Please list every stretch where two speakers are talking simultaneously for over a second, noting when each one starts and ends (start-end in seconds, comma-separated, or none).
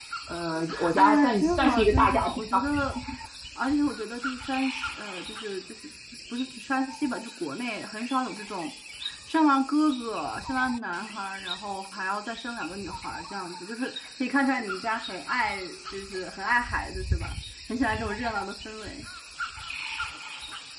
0.9-2.6